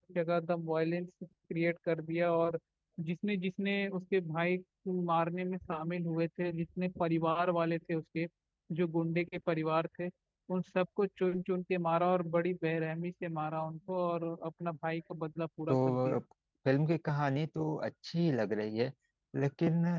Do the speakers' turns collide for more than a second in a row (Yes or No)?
No